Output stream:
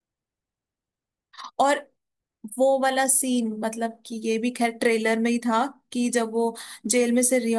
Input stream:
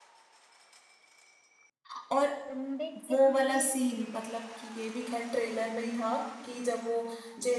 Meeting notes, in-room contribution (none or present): present